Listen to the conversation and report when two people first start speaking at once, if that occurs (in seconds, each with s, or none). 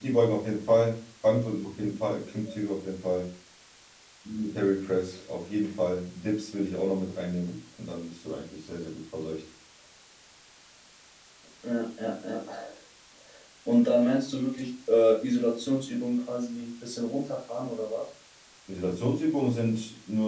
none